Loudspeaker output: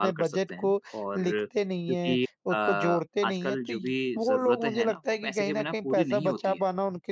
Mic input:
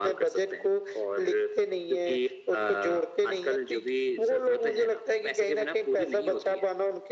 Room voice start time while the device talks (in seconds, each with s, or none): none